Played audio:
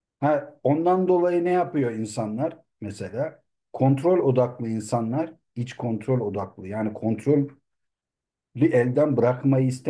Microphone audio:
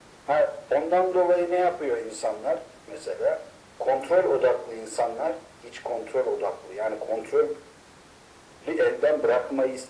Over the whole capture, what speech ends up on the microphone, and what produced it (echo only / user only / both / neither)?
echo only